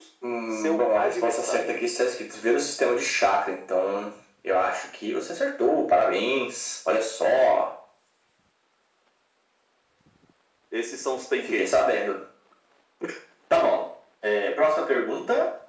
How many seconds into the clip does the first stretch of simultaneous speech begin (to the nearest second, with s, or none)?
1 s